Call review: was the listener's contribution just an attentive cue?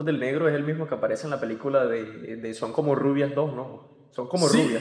No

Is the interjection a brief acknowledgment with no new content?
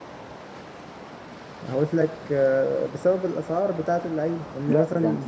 No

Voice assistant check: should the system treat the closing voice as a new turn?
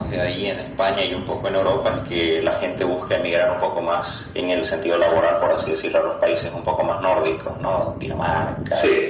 No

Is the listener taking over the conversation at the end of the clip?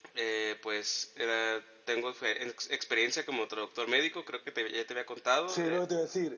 Yes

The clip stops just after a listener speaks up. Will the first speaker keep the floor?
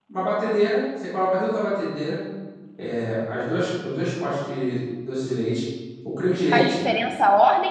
No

